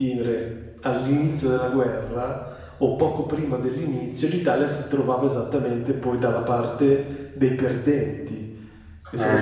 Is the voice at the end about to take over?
No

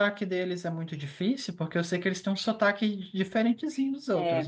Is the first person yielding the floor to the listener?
Yes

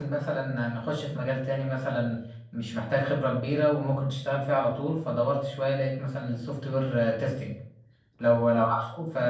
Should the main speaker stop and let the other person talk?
No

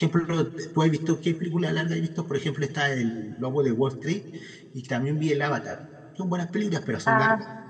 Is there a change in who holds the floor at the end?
Yes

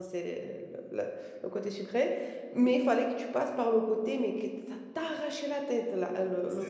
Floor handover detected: Yes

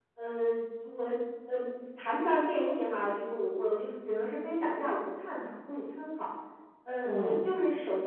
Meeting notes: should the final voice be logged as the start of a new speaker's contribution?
No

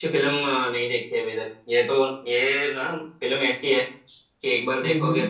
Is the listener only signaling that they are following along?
Yes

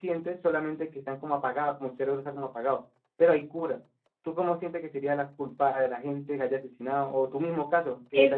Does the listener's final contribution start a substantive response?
Yes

